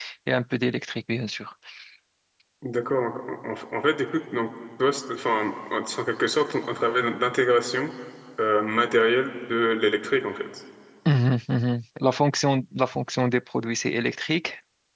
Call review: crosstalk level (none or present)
none